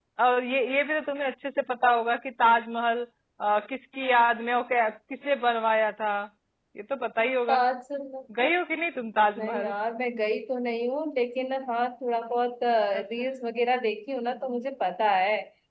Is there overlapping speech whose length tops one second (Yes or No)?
No